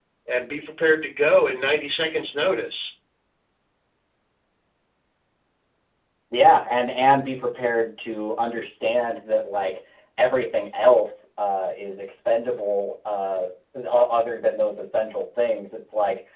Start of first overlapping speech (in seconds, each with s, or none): none